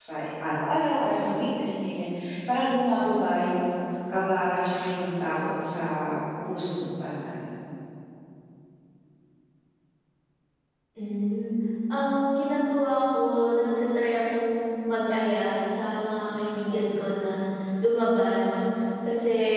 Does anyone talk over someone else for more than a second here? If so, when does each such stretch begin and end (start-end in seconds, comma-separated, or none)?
none